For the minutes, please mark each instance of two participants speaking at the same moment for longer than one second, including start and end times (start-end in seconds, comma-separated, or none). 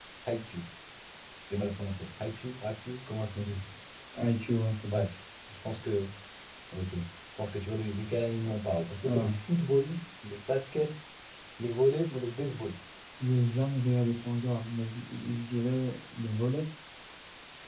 none